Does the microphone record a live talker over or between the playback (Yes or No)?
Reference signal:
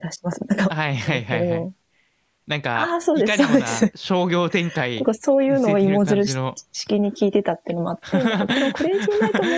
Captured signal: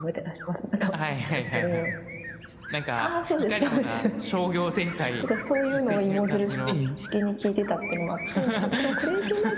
Yes